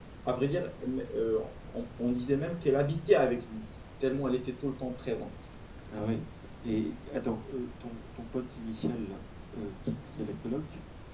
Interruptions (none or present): none